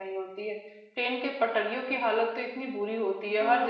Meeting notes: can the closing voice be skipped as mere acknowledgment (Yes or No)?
Yes